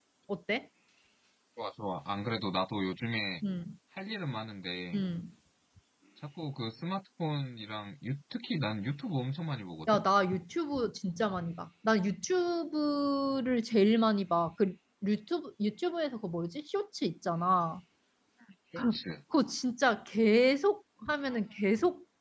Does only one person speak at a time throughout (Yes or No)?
Yes